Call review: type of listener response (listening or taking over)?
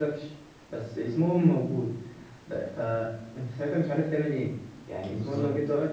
listening